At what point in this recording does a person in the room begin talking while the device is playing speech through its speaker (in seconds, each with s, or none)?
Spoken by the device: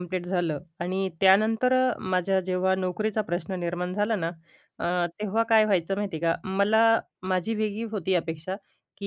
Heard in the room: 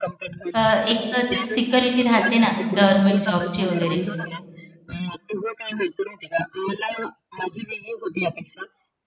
0.5 s